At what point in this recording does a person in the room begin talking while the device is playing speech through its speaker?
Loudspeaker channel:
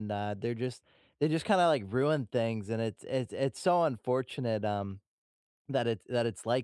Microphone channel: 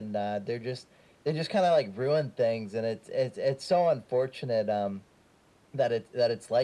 none

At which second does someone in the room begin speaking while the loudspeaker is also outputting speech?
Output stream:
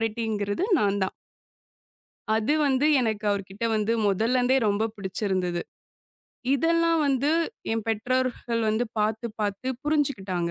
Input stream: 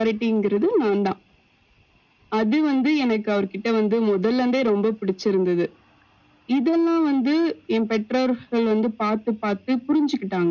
none

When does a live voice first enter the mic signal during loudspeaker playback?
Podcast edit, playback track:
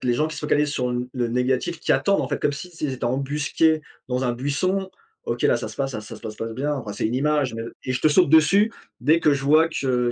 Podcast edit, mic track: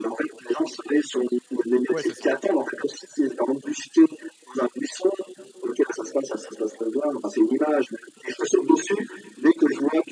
1.9 s

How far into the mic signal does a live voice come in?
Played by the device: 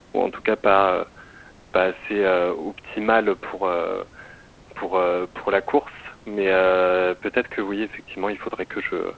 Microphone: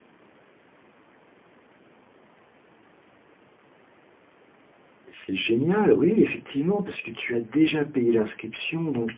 5.1 s

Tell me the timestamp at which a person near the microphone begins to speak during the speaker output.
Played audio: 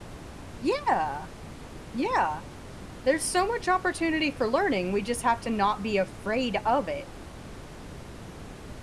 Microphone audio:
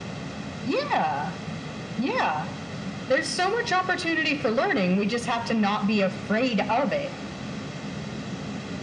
none

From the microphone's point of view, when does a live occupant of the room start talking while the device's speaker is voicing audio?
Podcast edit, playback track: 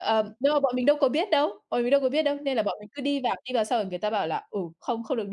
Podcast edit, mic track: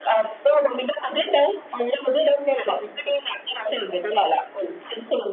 none

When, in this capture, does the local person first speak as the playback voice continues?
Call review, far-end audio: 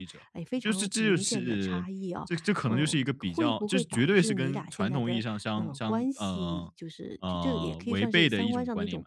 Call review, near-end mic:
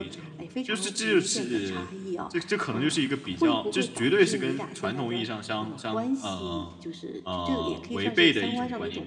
none

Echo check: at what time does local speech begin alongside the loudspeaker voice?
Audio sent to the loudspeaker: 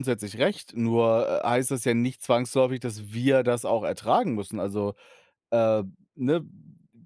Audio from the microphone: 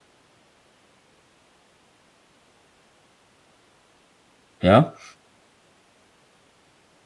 4.6 s

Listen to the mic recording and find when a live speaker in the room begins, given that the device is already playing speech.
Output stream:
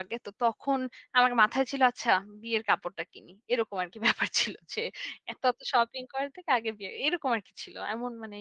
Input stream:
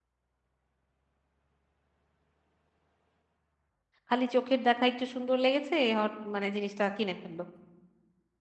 4.1 s

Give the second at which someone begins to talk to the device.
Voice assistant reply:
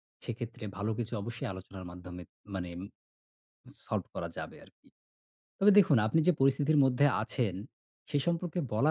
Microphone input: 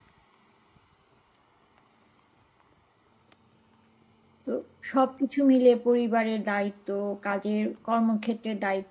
4.5 s

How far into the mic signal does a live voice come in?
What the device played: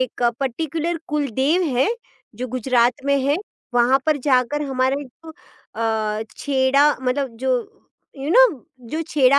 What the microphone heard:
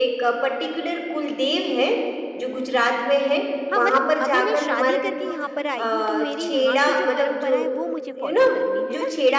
3.7 s

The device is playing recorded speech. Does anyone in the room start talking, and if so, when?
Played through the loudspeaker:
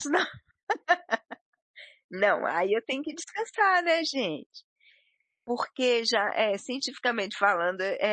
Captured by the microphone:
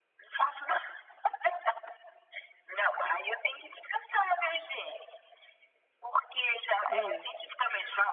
6.9 s

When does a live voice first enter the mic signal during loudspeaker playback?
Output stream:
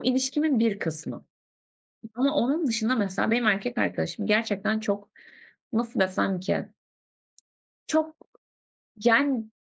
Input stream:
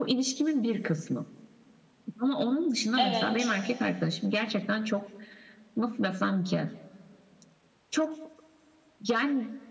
3.0 s

